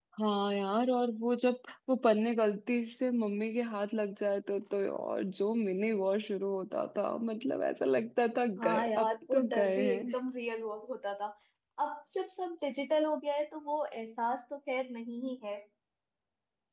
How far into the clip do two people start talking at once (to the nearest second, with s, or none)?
9 s